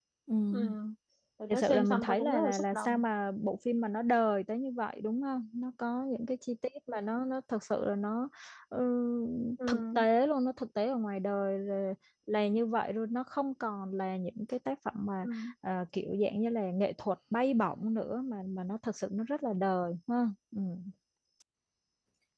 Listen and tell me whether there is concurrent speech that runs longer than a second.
Yes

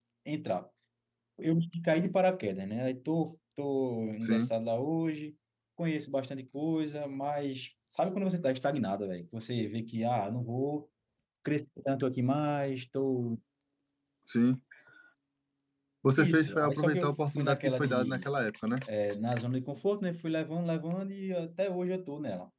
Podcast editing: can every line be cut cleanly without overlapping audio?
No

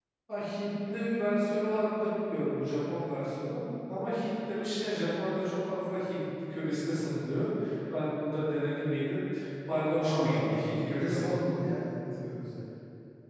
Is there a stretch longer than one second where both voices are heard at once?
Yes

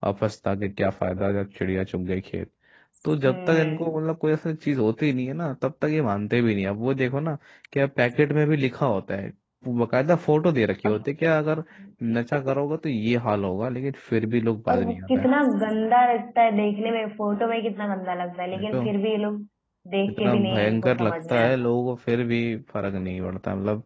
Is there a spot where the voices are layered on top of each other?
Yes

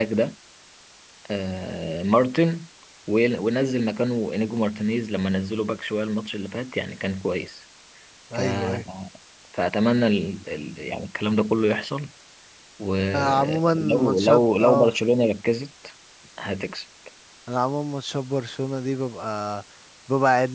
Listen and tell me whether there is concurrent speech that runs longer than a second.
Yes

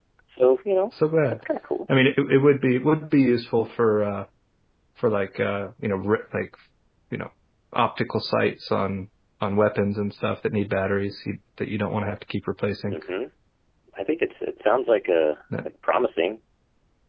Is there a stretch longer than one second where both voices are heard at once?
No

